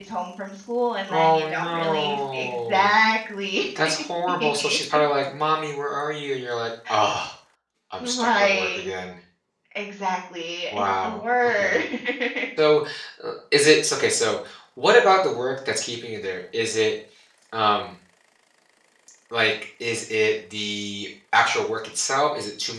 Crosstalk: present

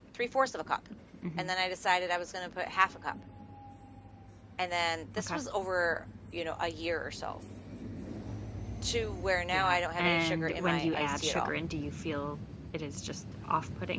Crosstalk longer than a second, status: present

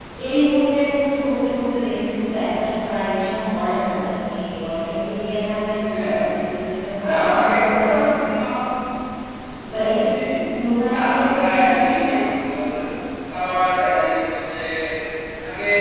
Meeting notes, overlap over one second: present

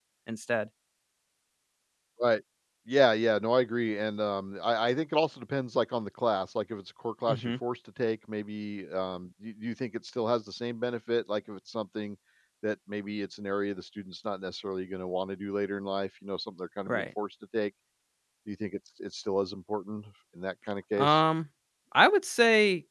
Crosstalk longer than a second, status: none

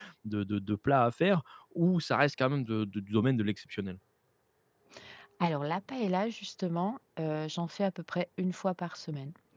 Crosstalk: none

